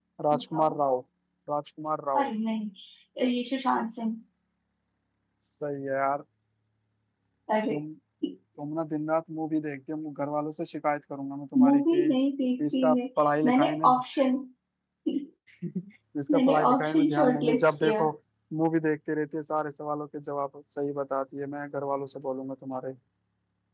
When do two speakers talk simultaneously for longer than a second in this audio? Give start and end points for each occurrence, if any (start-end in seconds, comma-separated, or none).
16.3-18.0